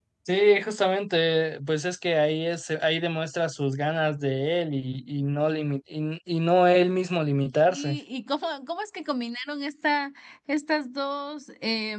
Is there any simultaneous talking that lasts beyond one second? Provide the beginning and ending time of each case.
none

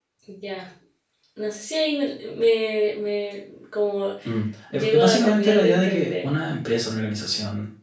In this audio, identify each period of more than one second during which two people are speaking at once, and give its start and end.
4.7-6.3

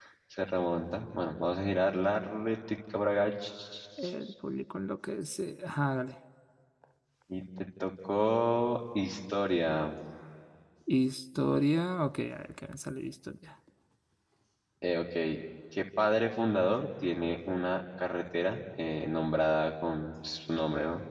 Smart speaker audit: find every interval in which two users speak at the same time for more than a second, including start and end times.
none

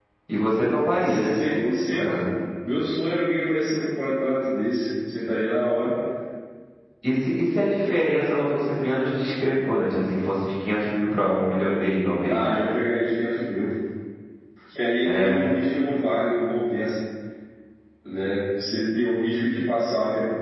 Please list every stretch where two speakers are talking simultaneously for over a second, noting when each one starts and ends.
none

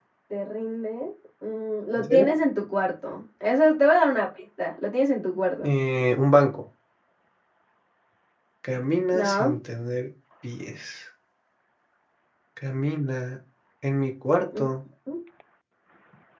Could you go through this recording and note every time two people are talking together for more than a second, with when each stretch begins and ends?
none

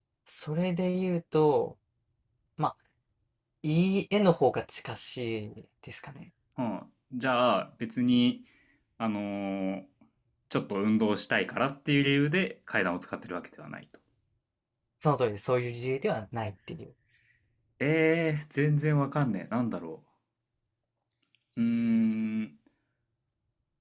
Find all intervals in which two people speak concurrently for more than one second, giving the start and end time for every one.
none

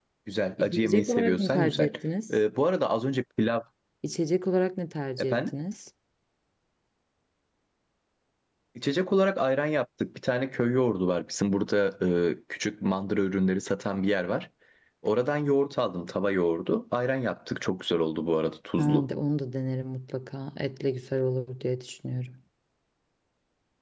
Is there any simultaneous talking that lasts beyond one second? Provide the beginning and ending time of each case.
0.6-1.9

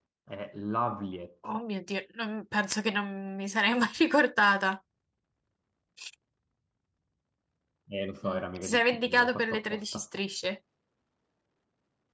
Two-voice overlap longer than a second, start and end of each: 8.3-10.0

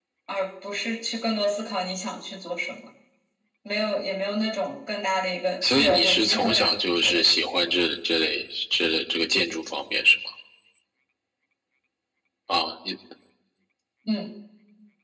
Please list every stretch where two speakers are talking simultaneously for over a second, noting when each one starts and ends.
5.6-7.2

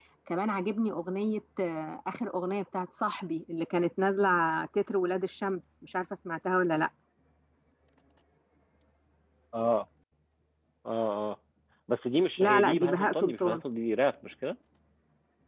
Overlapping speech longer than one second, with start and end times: 12.4-13.6

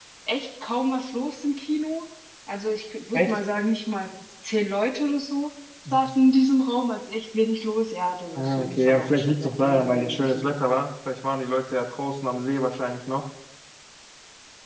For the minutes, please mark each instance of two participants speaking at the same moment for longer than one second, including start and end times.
8.4-10.5

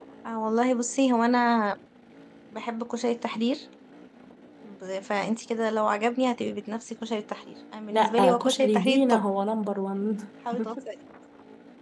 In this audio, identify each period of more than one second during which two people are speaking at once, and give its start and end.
7.9-9.2

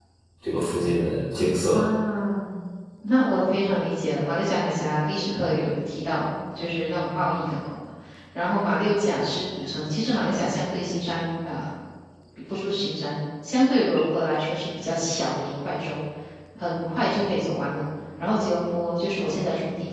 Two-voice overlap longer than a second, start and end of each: none

